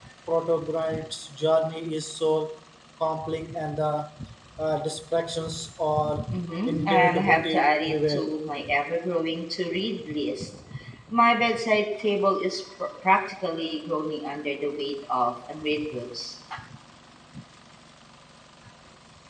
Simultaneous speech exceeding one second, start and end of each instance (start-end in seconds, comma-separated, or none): 6.7-8.4